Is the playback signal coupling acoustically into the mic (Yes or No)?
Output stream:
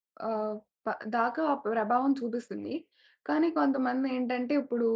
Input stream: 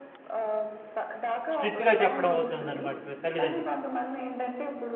Yes